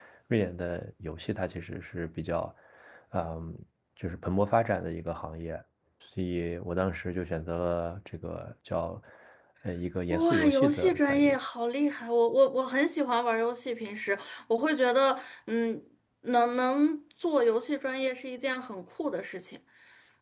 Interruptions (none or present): present